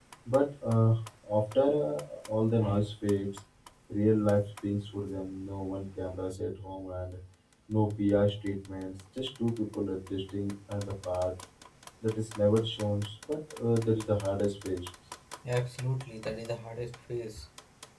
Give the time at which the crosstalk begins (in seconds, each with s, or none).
none